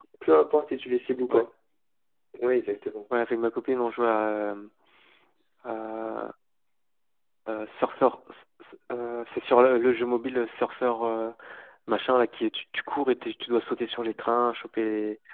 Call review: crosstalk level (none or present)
none